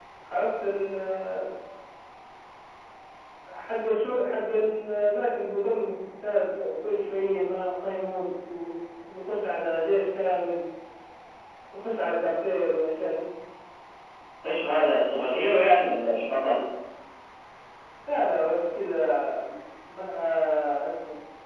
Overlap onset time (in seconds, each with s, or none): none